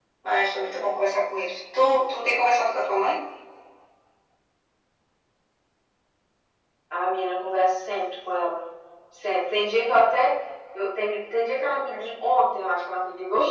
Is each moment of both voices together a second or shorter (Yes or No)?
Yes